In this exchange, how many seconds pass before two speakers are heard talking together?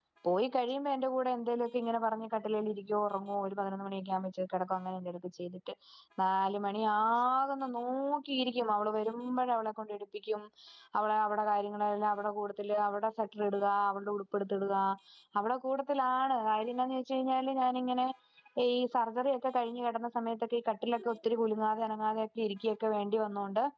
none

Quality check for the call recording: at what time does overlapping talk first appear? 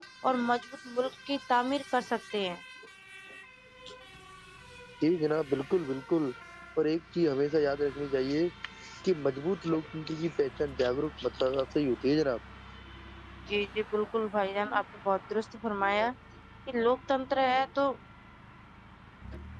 none

